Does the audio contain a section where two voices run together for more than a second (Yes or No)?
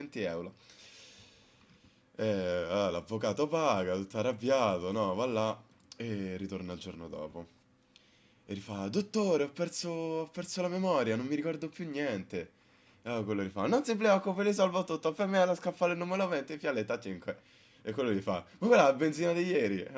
No